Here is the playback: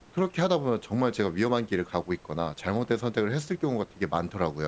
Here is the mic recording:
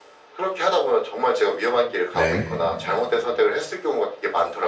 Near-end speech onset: 2 s

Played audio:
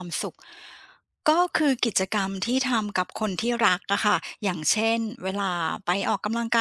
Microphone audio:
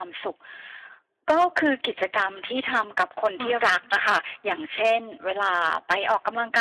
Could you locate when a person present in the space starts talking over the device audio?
3 s

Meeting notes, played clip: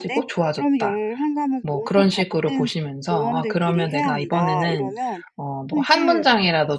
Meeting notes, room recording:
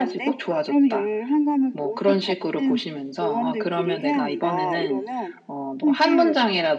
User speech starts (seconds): none

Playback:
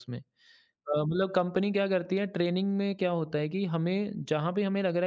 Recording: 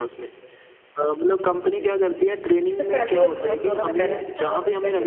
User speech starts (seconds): 2 s

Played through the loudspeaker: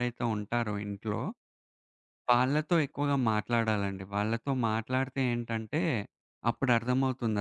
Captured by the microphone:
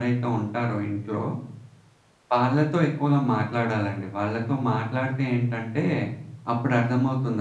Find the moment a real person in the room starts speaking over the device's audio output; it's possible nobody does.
none

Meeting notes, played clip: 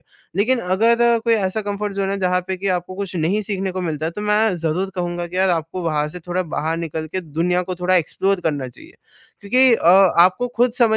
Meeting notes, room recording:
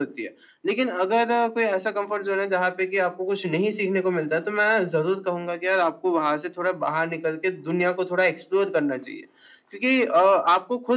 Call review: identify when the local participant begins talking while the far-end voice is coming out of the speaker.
none

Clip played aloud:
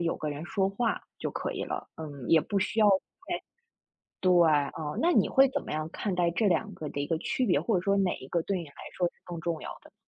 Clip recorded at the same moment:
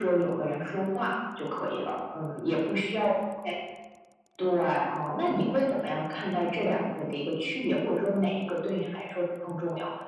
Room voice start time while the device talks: none

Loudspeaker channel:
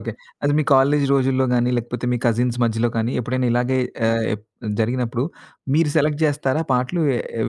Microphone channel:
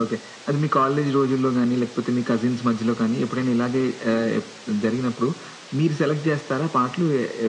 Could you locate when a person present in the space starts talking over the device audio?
none

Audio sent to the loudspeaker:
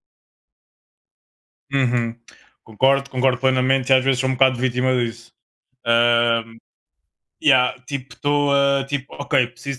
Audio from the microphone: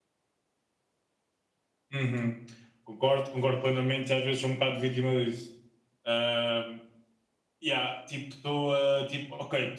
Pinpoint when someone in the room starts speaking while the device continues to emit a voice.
none

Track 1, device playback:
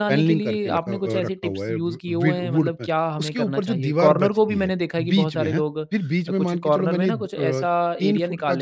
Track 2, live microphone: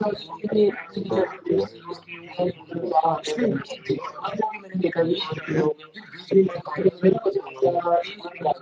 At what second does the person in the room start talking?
none

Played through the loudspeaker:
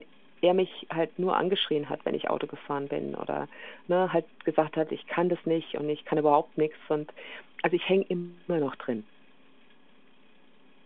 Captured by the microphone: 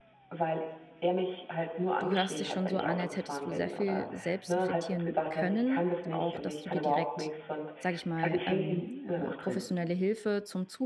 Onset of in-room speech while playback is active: 2 s

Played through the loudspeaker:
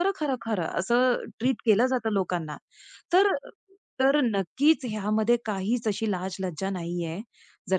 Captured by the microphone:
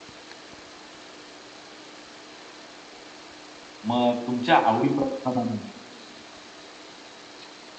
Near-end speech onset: 4 s

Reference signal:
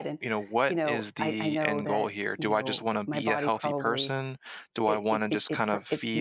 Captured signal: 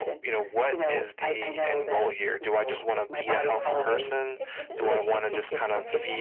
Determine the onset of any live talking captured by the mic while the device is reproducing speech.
2 s

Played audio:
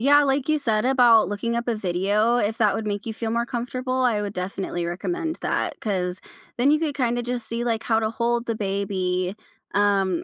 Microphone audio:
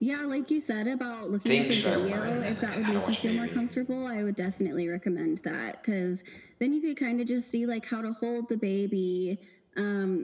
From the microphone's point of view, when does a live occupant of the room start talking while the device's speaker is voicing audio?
1 s

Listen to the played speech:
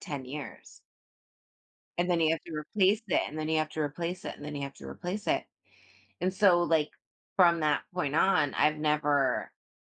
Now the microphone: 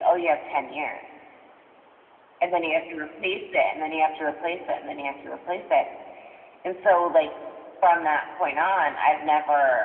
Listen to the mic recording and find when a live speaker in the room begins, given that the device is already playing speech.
none

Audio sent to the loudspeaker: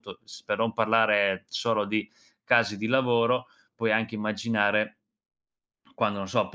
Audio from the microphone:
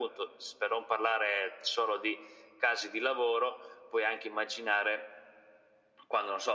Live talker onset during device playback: none

